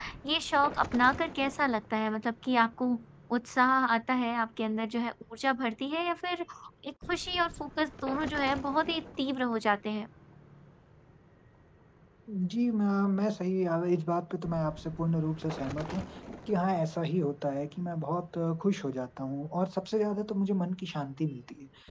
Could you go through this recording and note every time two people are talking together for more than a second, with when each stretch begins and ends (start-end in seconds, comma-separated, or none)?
none